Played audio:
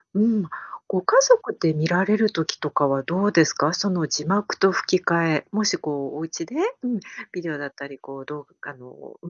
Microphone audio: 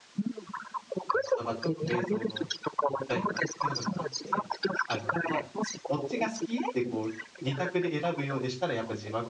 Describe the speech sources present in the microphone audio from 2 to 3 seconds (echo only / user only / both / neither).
both